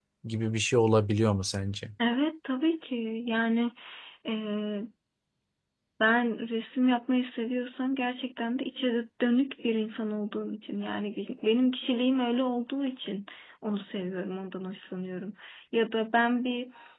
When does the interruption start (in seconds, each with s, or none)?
none